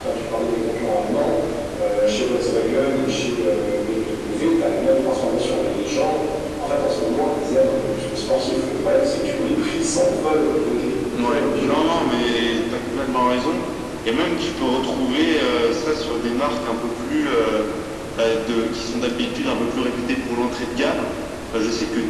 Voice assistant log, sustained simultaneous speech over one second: present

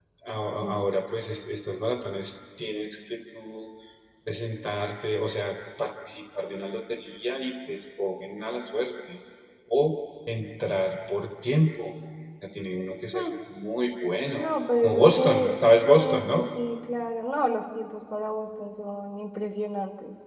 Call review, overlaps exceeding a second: present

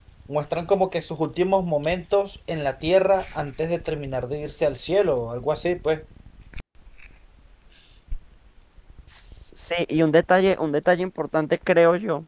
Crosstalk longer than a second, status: none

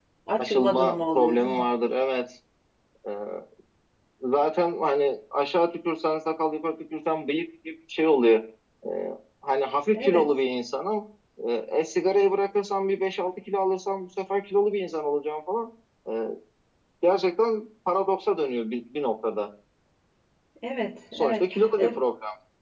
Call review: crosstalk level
present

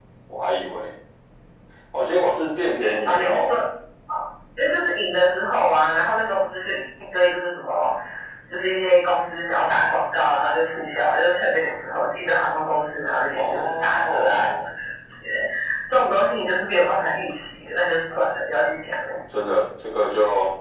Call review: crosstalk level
present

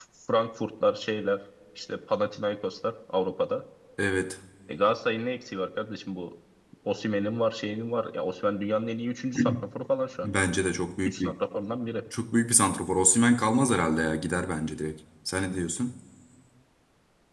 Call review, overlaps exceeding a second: none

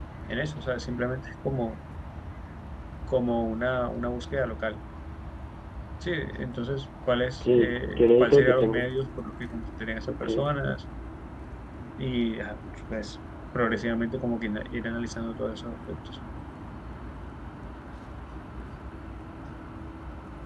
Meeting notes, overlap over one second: present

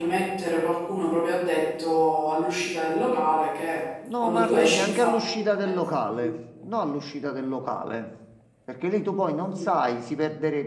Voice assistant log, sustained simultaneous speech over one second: present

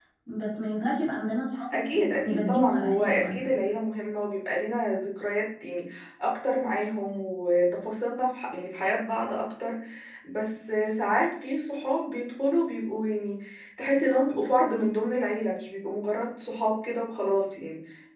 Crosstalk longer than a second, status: present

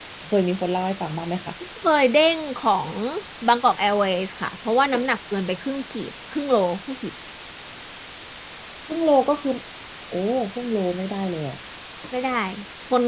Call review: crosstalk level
none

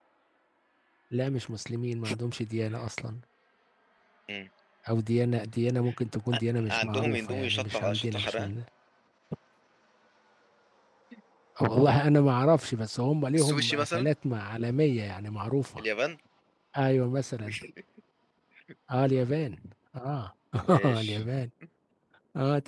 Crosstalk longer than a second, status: present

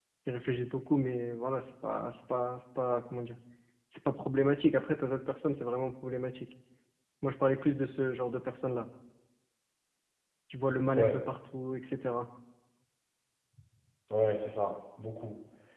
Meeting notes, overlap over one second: none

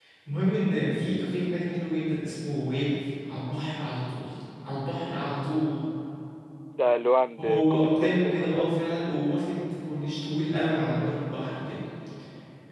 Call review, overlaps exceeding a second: present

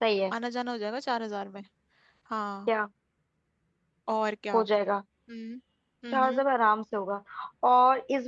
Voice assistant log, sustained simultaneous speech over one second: none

